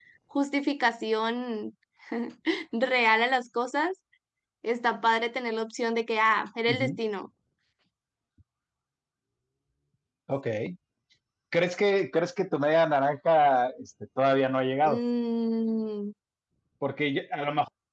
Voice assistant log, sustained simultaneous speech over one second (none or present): none